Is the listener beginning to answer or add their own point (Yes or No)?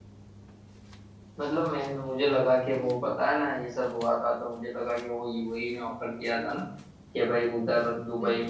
No